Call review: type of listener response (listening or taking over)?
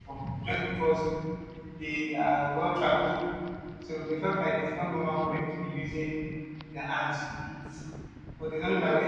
listening